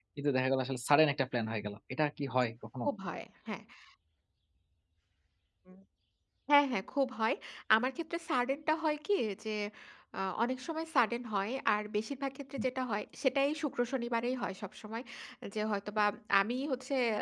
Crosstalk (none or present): none